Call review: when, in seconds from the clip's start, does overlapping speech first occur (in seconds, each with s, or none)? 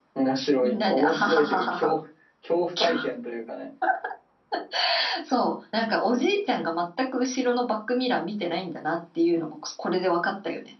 0.6 s